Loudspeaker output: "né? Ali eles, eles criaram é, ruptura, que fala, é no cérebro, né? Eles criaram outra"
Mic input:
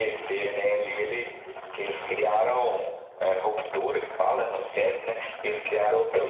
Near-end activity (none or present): none